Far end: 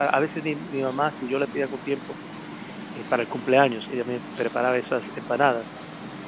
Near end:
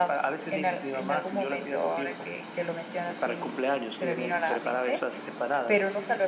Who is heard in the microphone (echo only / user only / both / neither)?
both